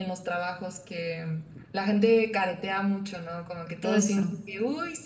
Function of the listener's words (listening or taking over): listening